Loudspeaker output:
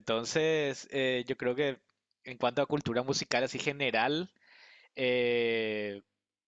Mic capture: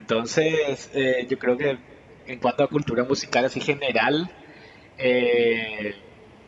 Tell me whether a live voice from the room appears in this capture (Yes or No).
No